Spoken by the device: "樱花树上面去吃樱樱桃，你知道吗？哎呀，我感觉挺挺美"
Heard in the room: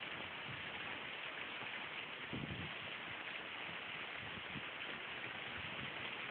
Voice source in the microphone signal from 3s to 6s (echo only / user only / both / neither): neither